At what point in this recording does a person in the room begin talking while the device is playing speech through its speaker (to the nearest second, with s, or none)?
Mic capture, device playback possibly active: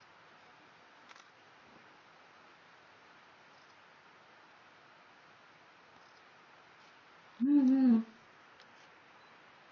7 s